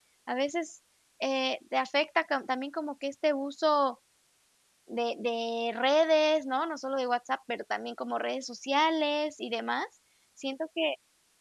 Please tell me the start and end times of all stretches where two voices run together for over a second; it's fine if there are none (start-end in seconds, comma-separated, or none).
none